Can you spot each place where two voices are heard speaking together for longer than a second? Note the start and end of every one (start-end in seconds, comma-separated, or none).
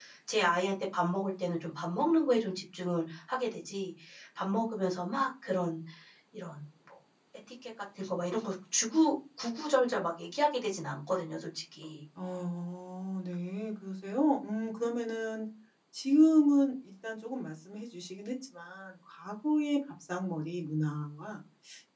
none